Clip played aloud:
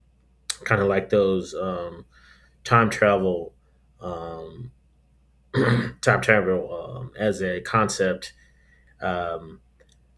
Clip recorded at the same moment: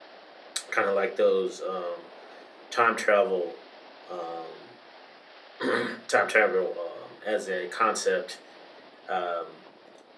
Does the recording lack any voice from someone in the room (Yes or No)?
Yes